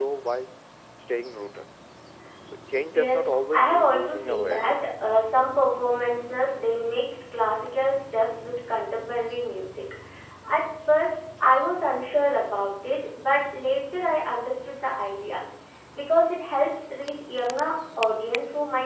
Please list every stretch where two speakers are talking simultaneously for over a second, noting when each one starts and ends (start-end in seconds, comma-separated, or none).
2.9-4.8